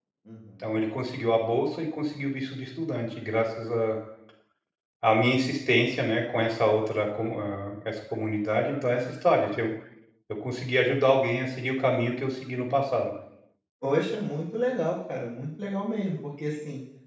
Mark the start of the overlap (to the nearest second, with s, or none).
none